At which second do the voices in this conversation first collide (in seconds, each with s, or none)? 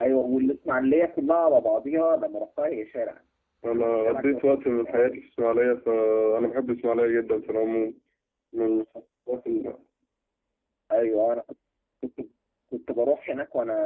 3.6 s